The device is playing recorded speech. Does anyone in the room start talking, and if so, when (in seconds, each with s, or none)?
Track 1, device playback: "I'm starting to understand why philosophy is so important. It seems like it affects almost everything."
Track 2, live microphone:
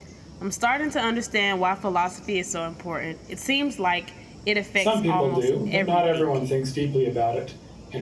4.7 s